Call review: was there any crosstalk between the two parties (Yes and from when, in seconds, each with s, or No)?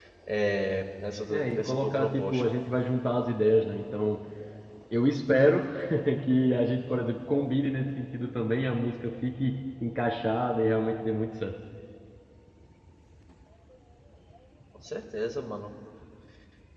Yes, from 1.3 s